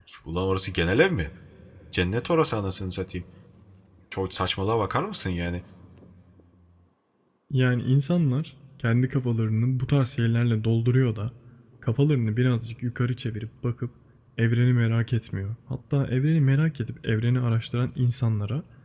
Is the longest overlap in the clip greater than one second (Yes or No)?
No